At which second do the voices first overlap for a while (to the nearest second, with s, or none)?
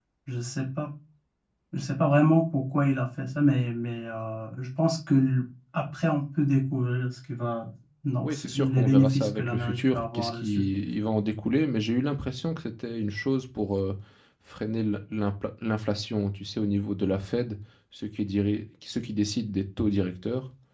8 s